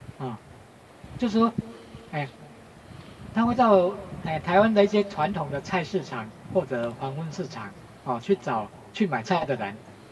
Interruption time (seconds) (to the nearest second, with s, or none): none